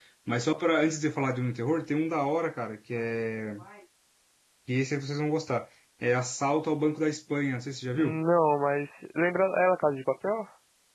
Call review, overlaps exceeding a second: none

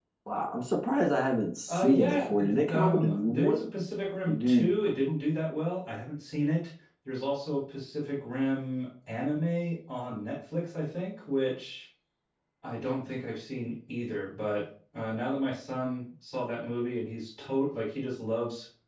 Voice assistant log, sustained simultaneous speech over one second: present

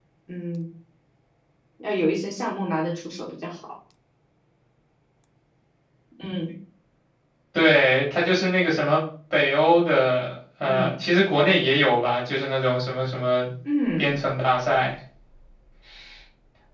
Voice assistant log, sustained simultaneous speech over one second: none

